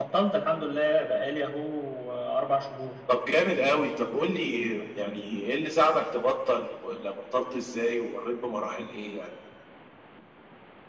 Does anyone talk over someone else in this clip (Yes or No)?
No